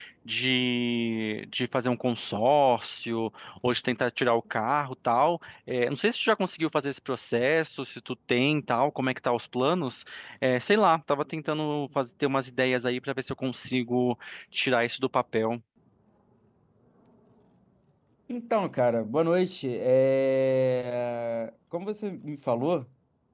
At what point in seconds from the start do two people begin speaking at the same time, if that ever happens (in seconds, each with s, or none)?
none